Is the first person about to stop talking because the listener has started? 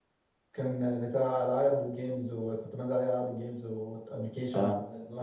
No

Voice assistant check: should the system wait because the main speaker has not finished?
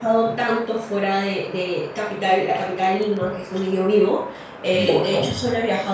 Yes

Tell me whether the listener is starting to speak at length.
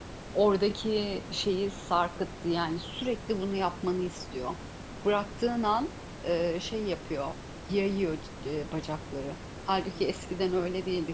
No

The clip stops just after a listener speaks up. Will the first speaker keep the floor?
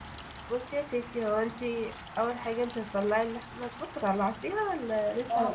No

